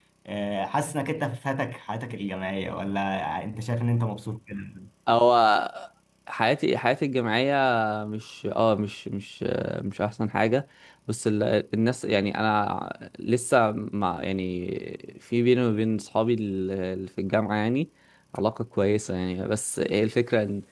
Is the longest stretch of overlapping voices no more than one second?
Yes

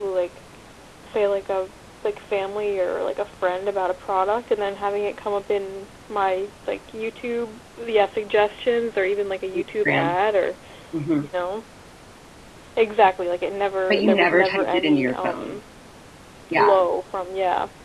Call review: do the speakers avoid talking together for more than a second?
No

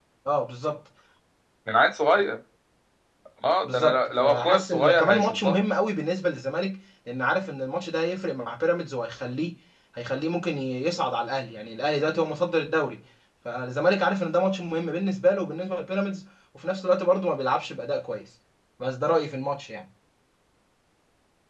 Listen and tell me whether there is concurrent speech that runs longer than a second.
Yes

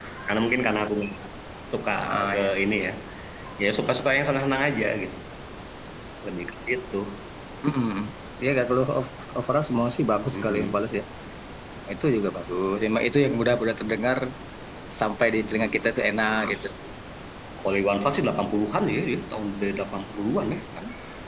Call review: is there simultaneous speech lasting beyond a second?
No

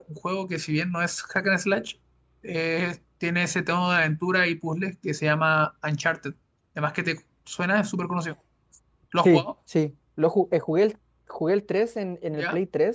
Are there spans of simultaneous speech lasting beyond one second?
No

